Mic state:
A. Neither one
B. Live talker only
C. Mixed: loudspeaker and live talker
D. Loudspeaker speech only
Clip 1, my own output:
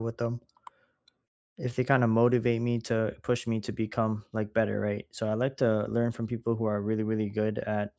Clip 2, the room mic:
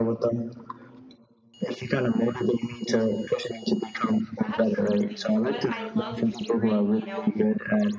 C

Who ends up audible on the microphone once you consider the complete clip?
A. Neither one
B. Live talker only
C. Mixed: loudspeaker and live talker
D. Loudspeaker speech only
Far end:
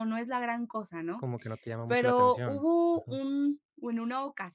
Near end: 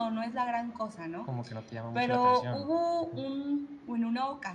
D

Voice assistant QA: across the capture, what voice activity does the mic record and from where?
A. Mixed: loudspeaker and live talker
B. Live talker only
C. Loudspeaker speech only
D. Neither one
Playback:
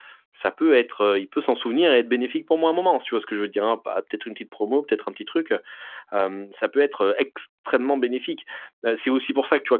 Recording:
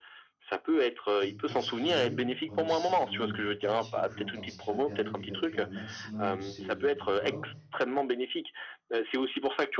A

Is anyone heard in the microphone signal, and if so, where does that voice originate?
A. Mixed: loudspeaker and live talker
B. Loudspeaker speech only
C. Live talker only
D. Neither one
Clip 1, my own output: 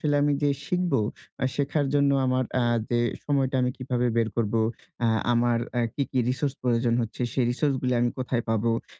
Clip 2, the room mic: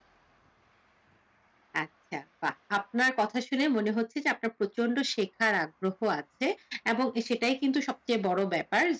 C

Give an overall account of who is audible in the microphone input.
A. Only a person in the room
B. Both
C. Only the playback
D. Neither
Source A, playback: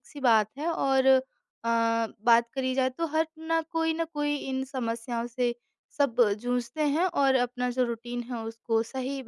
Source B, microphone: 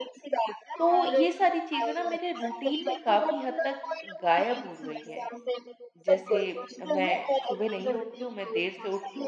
B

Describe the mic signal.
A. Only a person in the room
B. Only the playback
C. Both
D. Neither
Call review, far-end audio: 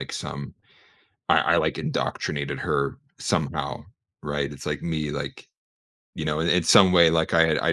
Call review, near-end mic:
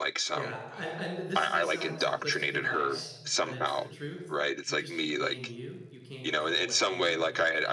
C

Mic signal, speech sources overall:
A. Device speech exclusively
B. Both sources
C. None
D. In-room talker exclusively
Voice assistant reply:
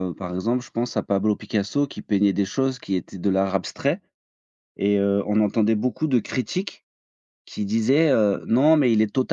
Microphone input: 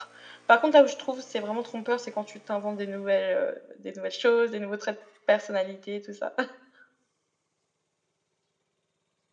D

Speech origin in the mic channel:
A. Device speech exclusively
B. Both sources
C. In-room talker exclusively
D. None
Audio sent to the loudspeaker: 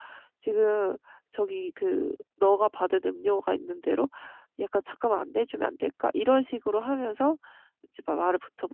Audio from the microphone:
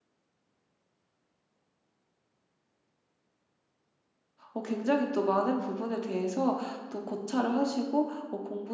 C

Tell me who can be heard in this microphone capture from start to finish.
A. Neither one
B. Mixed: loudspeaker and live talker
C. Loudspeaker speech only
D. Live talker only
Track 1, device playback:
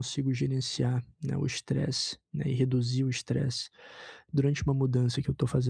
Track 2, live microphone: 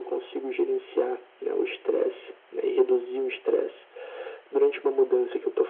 C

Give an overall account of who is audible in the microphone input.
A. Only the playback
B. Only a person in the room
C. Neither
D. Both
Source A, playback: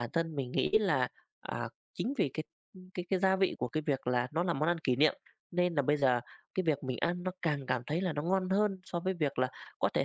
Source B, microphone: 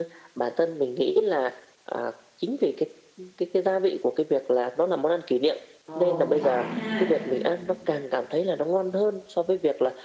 D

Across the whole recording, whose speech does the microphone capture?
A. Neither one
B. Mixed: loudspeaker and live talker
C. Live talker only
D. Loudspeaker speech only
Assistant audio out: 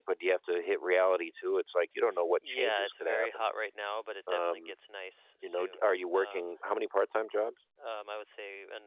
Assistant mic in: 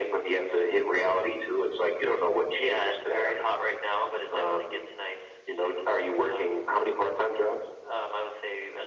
D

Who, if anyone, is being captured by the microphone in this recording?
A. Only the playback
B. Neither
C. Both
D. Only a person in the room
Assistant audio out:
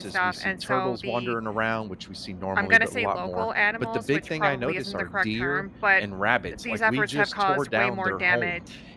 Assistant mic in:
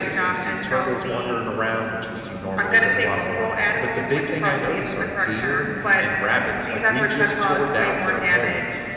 A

